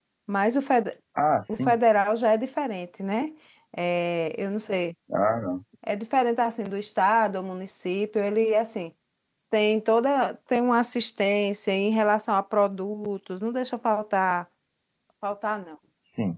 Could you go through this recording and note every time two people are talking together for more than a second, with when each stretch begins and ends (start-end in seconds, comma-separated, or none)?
none